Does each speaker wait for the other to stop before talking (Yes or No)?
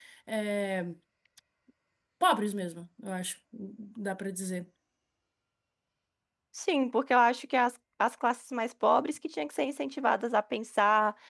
Yes